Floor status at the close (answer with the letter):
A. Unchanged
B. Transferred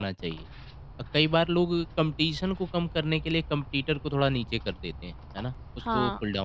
B